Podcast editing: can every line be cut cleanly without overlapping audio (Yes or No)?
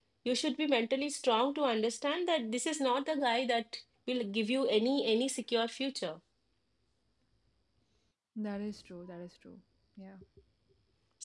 Yes